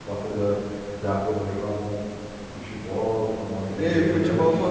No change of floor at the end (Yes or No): No